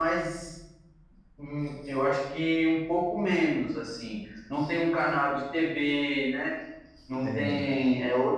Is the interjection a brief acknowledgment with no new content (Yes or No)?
Yes